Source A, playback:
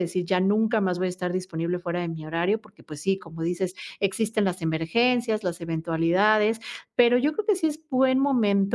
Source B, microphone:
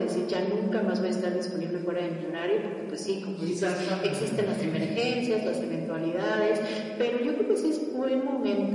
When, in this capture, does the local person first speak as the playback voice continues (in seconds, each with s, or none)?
3.3 s